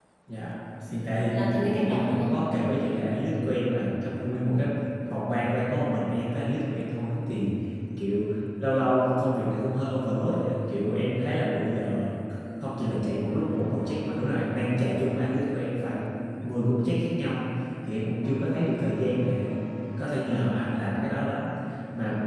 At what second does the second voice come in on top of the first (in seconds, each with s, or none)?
0.9 s